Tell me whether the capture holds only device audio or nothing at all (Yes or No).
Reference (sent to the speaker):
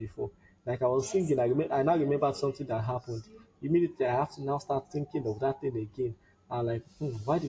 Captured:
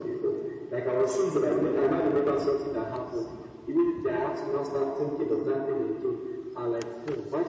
Yes